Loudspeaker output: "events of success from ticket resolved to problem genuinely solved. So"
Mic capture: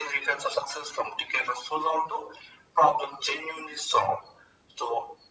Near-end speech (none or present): none